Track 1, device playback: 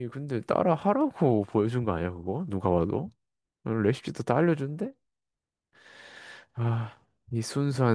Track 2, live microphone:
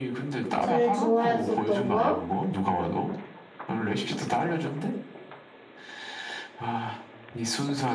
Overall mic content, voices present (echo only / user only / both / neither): both